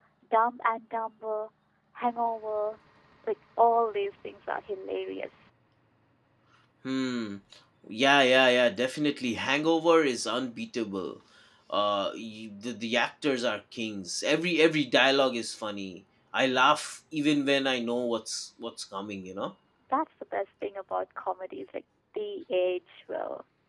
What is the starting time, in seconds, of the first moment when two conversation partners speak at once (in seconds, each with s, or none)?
none